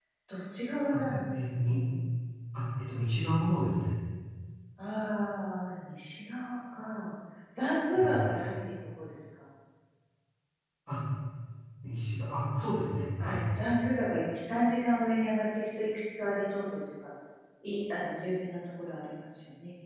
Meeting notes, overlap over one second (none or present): none